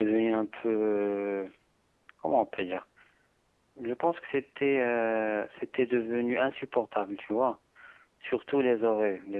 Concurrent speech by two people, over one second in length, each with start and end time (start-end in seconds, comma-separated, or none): none